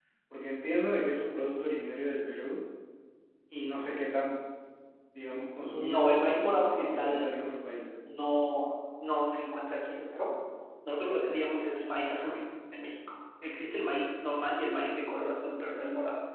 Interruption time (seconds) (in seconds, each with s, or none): 5.7 s